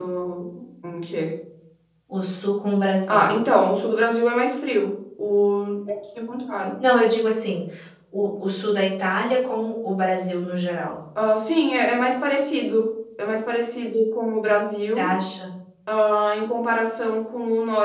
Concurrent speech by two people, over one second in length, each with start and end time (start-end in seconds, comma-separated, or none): none